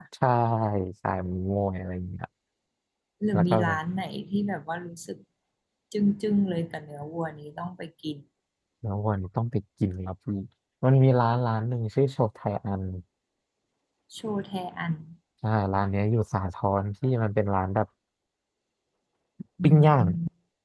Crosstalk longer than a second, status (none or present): none